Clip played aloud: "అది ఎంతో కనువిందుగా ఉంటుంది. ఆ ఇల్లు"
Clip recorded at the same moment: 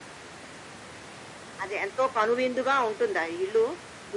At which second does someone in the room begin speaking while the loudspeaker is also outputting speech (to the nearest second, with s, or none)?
none